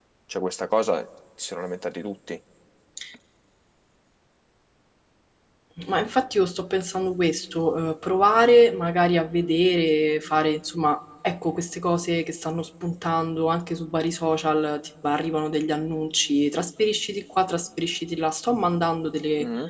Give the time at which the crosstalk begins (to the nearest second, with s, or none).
none